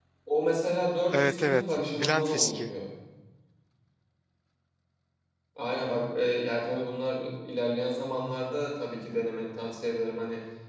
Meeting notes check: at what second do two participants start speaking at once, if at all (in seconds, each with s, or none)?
1.1 s